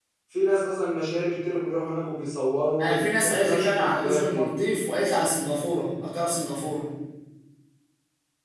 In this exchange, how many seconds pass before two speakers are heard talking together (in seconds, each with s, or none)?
2.8 s